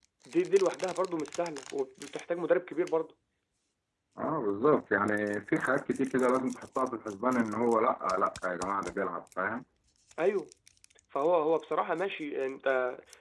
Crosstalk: none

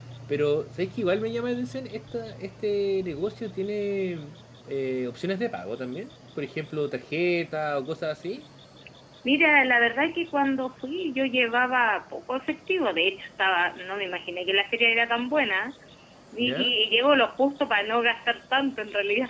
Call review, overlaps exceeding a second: none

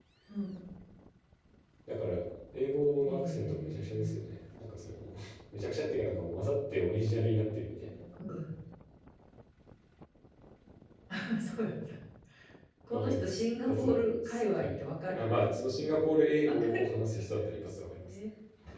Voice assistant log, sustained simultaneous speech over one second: present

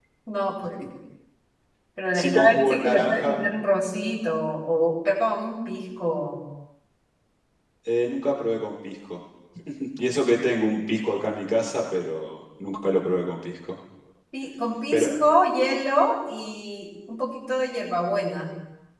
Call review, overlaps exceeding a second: present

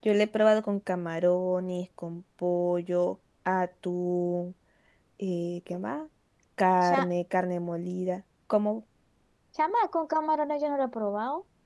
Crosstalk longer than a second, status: none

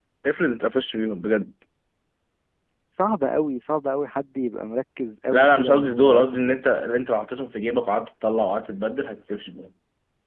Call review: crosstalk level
present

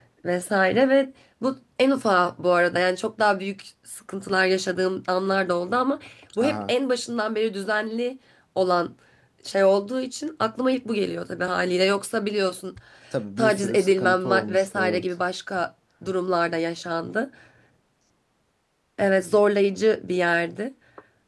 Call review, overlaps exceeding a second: present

